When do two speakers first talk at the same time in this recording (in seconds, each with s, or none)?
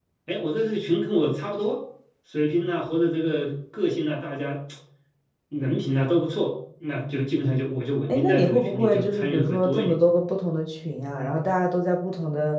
8.0 s